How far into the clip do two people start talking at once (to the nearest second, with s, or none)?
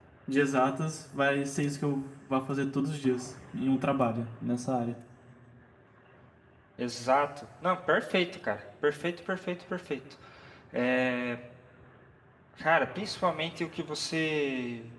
none